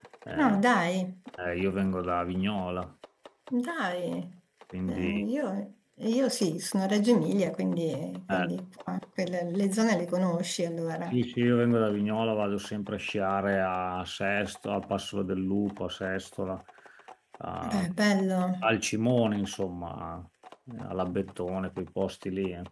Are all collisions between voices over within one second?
Yes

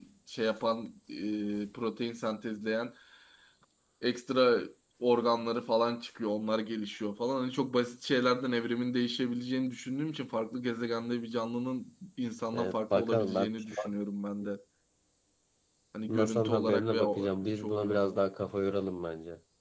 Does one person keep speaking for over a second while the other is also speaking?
Yes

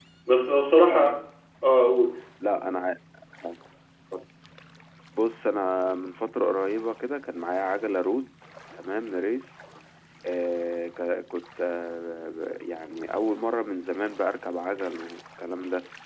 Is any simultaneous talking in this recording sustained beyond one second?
No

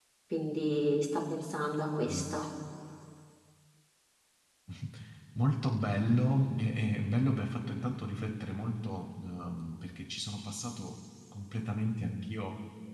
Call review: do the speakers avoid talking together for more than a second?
Yes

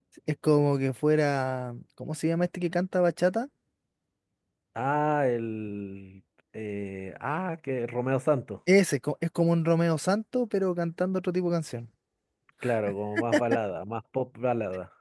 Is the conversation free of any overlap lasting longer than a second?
Yes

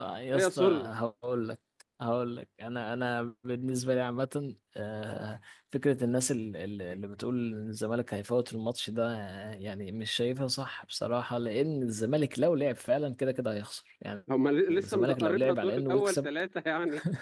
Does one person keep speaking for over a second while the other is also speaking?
Yes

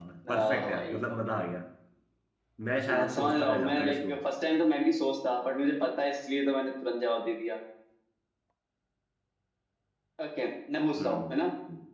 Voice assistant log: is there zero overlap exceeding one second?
No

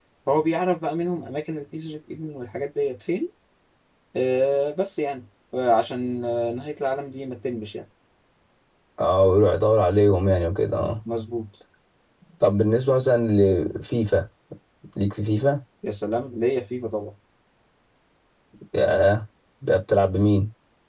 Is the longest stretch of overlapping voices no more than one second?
Yes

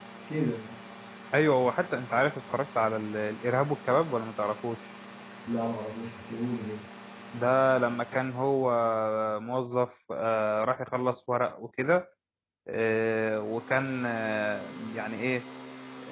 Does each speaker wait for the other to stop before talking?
Yes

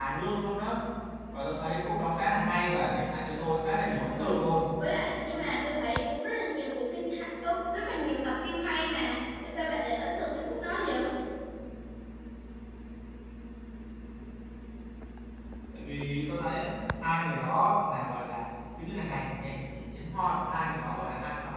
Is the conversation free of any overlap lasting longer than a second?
Yes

